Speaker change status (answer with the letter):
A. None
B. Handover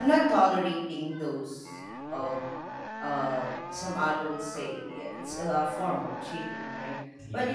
A